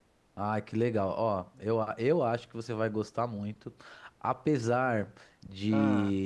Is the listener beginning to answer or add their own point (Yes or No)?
No